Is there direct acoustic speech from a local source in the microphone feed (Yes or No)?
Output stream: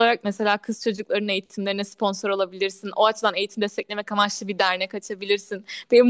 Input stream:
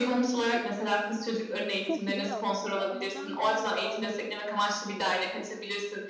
Yes